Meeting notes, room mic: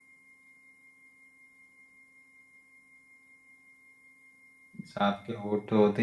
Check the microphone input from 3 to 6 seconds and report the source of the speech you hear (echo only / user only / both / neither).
user only